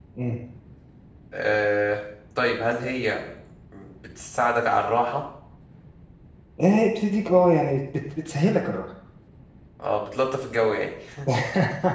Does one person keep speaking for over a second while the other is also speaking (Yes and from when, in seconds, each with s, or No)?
No